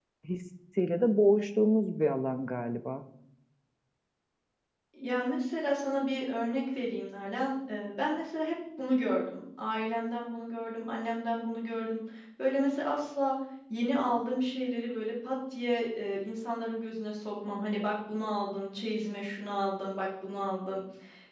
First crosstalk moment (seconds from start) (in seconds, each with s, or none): none